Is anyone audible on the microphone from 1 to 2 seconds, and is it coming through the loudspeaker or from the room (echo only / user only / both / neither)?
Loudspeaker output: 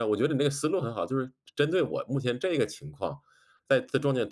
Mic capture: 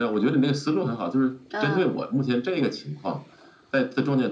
both